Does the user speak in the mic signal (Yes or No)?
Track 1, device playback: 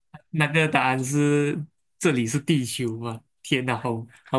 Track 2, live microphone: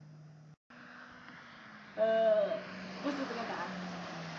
Yes